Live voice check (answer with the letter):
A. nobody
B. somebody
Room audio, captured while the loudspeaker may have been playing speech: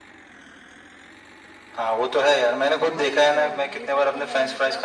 B